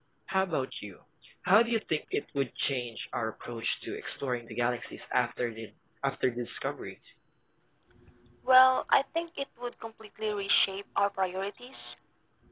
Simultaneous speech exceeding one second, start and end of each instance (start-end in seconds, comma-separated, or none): none